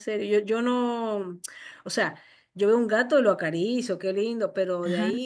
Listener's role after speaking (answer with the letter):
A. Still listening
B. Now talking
A